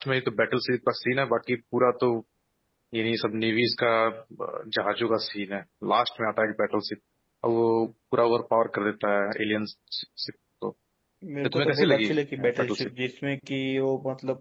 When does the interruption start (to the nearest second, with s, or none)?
11 s